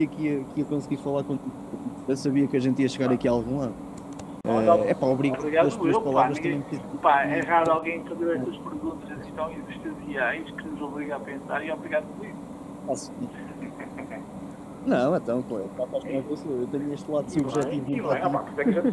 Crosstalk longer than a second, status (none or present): present